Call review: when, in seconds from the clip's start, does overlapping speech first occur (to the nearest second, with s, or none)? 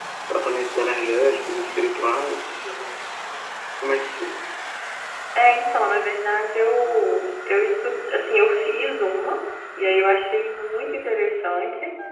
none